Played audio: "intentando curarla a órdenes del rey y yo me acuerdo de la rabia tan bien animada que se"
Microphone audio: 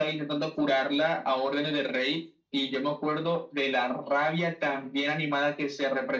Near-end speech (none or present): none